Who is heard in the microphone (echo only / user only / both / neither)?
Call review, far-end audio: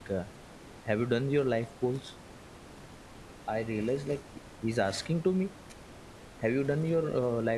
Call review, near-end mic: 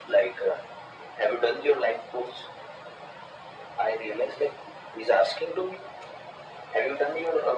echo only